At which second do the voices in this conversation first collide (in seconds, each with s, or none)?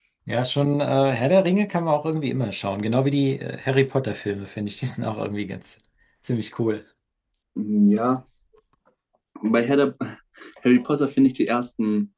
none